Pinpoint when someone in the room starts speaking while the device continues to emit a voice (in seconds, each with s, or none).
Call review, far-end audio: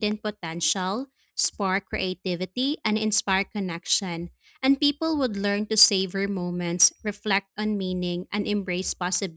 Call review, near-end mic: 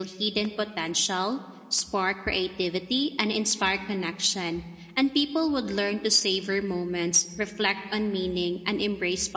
none